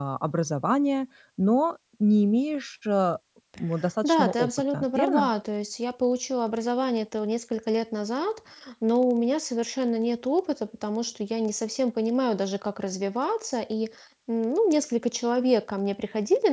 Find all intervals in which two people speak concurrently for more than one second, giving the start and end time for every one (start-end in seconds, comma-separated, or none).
4.0-5.3